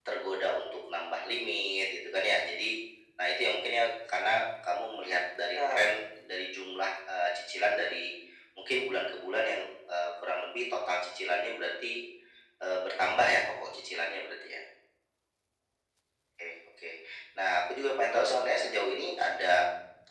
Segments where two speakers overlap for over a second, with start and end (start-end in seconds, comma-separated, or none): 18.1-19.4